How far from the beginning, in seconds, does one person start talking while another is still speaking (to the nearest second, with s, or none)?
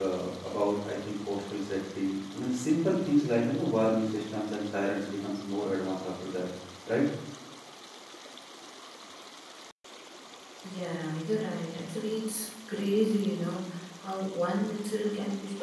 none